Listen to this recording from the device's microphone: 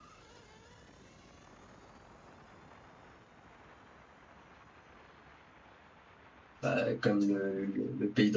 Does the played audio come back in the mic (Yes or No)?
No